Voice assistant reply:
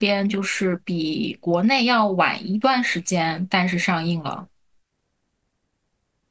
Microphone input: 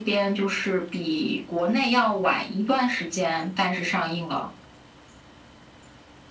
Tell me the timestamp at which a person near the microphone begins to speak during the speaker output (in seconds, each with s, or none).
none